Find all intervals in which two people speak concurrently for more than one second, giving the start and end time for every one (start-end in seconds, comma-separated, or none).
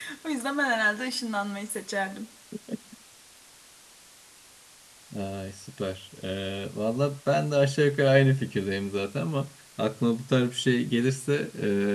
none